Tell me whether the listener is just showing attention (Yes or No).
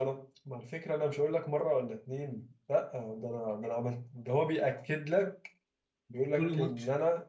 Yes